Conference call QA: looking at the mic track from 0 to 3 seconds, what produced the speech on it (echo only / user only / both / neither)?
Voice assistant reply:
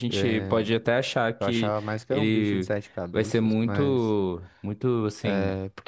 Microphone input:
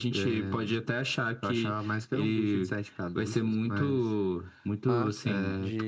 echo only